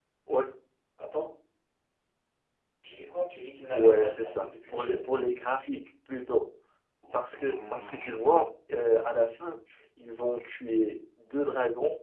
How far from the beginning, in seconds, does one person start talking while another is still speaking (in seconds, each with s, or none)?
3.7 s